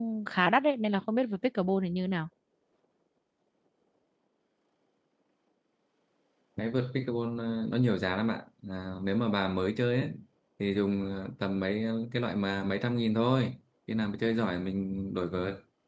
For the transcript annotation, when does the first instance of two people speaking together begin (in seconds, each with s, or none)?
none